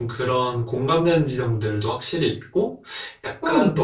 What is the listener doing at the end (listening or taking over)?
taking over